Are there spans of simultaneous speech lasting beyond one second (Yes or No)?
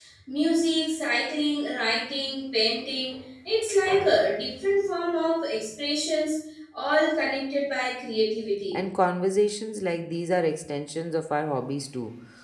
No